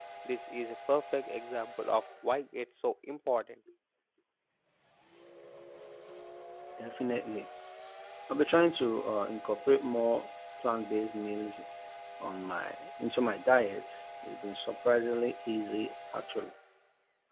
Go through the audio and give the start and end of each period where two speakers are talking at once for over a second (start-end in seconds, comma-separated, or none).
none